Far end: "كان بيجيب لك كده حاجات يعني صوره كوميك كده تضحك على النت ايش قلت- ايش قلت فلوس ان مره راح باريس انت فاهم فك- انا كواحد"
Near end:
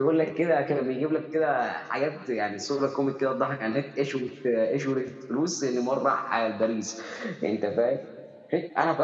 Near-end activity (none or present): none